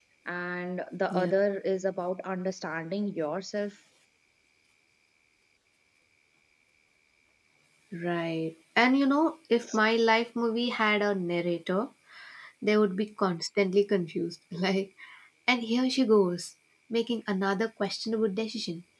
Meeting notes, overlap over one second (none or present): none